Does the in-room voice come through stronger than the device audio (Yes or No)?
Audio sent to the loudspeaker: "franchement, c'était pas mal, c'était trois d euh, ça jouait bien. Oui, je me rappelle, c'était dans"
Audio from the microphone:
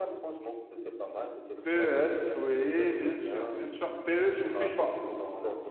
Yes